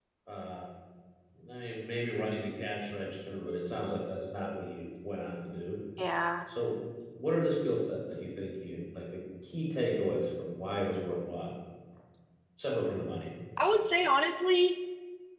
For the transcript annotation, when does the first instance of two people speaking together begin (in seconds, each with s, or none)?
none